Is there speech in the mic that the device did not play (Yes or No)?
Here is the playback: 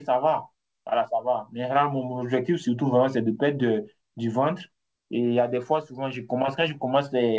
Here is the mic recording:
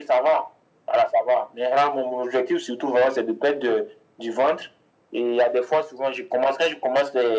No